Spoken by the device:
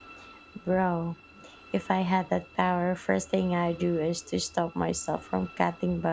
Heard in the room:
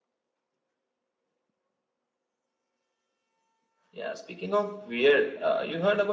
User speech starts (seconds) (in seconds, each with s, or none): 3.9 s